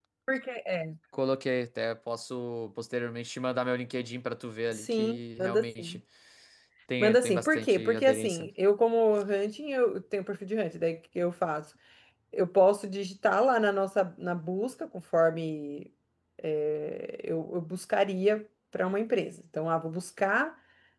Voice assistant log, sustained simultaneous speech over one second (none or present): present